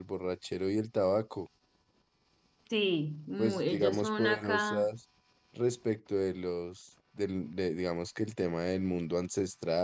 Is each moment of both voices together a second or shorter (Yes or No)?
No